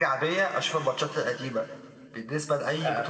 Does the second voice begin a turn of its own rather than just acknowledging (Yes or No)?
No